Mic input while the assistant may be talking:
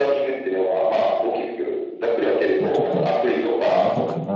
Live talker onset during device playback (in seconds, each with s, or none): 2.6 s